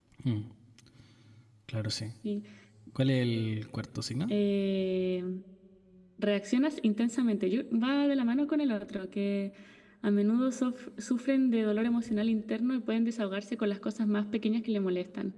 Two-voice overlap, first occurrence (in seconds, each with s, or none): none